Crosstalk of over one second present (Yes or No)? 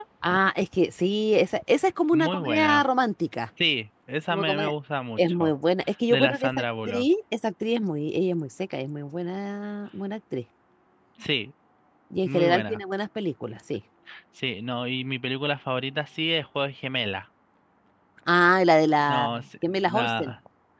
Yes